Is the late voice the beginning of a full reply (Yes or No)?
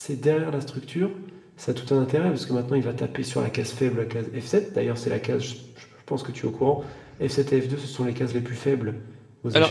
Yes